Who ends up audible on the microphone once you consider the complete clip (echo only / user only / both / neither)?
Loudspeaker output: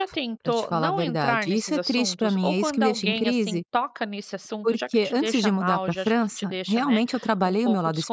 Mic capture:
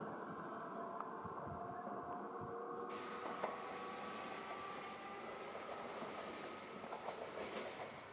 neither